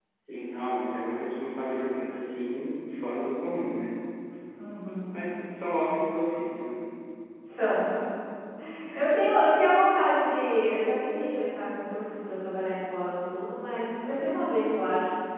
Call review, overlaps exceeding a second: none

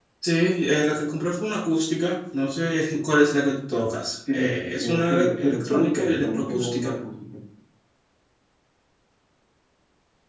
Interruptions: present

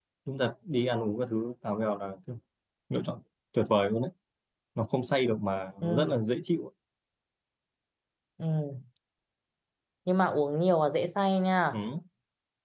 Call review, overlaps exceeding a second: none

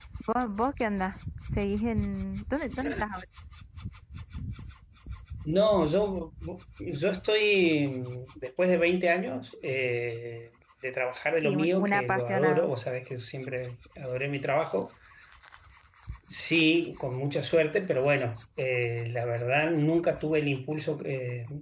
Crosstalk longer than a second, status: present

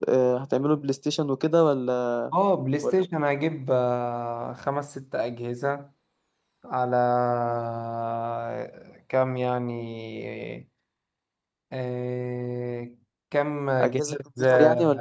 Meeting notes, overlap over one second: present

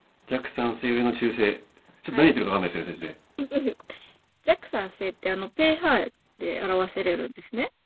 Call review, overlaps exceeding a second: none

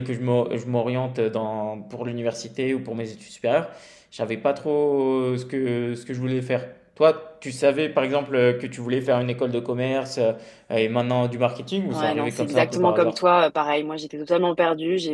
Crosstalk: present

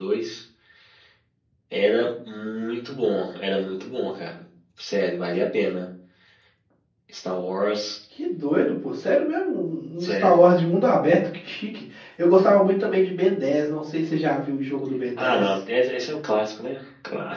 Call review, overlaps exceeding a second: none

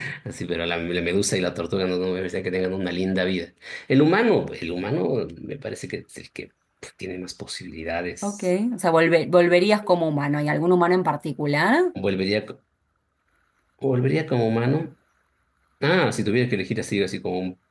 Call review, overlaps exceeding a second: none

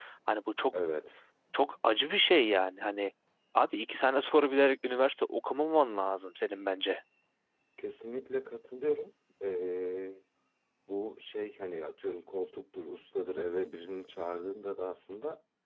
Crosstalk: none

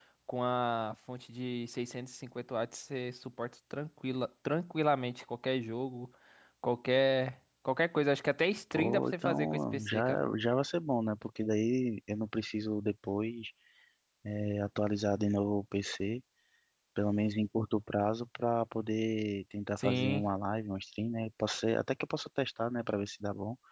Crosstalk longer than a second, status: present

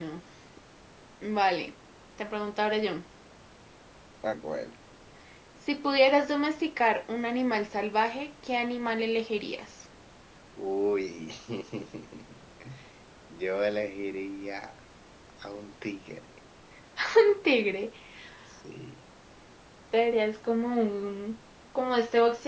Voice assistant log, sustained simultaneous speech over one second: none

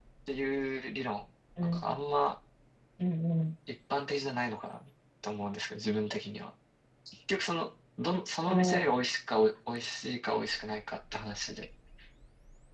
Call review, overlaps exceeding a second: none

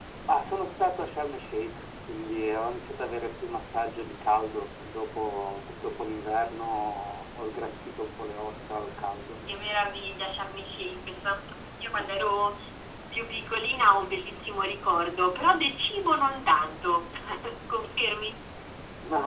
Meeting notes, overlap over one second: none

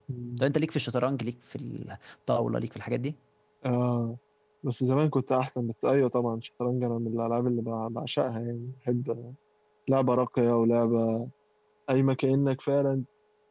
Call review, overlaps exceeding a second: none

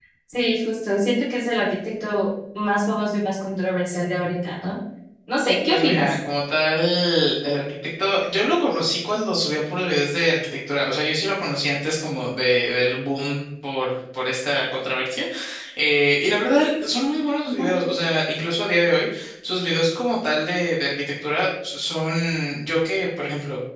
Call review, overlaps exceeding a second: none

